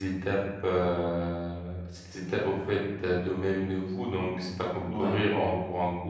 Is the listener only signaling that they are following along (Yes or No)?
Yes